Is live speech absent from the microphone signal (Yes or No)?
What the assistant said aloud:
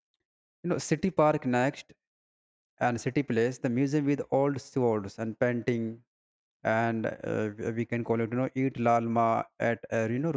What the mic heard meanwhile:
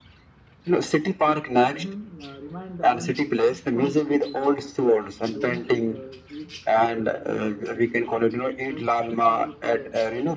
No